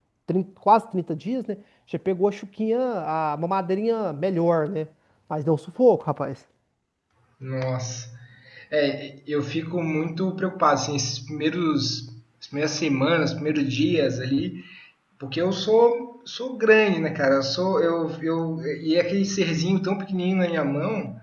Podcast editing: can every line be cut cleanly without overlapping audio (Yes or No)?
Yes